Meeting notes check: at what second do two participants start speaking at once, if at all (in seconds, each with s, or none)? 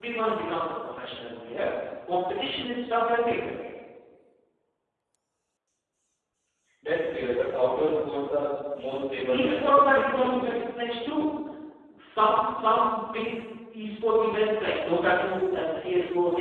9.3 s